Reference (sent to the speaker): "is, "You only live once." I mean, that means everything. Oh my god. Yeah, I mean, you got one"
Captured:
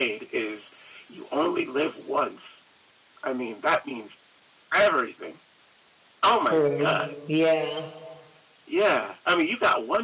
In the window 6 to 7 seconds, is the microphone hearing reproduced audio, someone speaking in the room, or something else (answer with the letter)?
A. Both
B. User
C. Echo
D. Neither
A